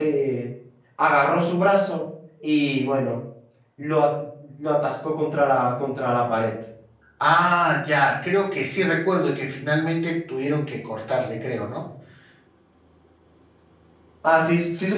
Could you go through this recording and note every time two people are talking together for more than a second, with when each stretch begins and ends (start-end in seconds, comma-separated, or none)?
none